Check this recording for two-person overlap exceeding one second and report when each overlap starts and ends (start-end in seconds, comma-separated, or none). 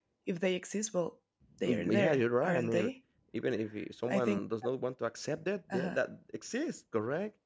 1.6-2.9